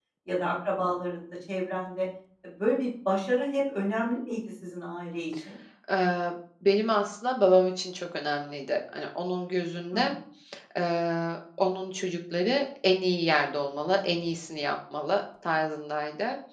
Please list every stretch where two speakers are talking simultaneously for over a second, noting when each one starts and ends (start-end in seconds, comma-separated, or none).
none